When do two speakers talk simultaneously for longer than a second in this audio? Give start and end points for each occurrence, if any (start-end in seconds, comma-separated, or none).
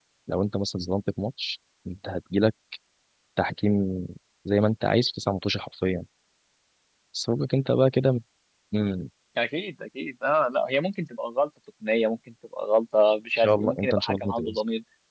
13.4-14.6